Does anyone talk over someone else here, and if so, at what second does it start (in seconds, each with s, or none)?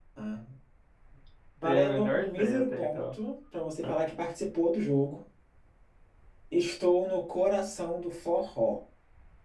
1.6 s